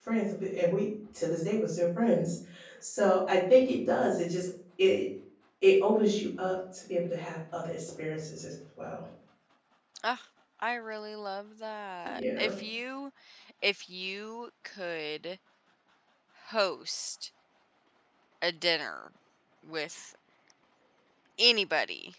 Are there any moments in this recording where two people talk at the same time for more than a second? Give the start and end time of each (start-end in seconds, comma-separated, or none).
none